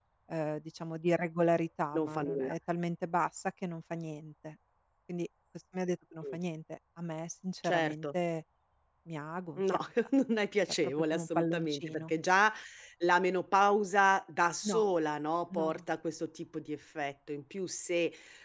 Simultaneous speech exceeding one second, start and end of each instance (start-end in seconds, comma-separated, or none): 10.8-12.1